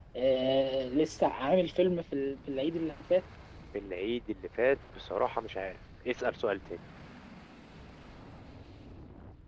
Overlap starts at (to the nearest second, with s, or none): none